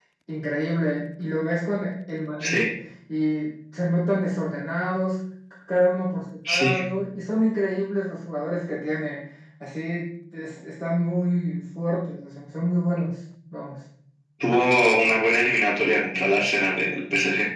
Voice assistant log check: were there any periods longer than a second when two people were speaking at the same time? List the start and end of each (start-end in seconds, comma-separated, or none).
none